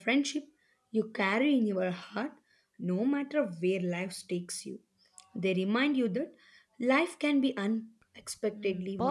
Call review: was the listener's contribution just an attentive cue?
No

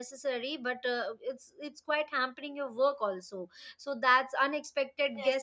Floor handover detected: Yes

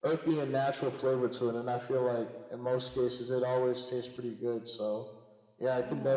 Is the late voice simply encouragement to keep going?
Yes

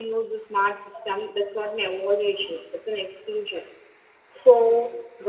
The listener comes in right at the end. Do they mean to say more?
No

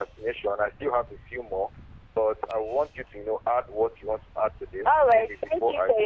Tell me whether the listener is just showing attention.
No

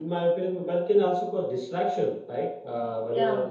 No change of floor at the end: Yes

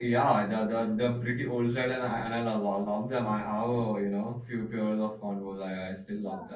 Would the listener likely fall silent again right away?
No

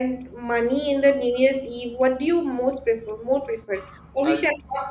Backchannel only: Yes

